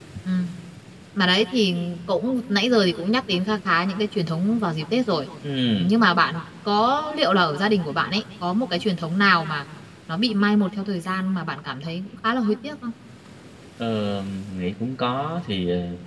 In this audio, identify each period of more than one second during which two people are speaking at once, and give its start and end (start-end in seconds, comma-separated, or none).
none